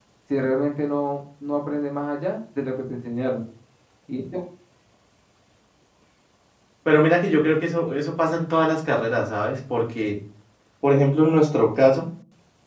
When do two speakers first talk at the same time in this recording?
none

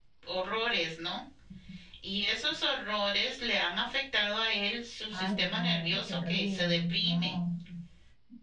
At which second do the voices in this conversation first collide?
5.1 s

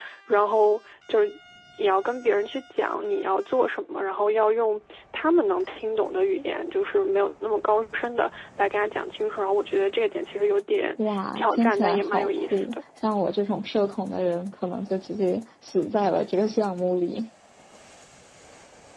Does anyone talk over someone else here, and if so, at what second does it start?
11.4 s

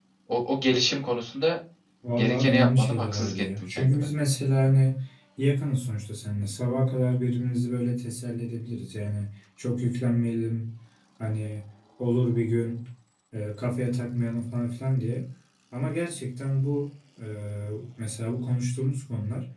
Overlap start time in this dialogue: 2.1 s

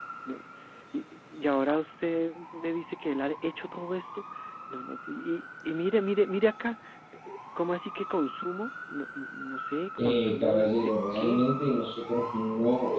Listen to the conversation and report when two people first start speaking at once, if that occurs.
10.0 s

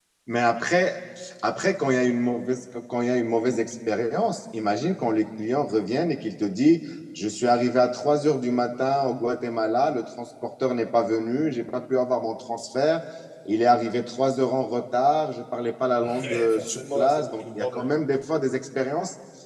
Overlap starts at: 16.0 s

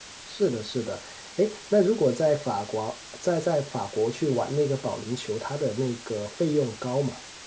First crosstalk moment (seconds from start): none

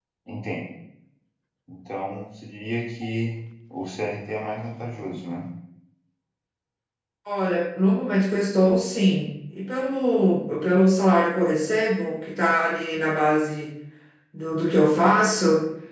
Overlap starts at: none

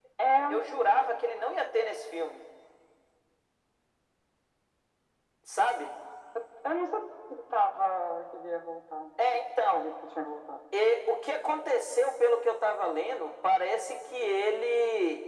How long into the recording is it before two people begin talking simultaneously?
none

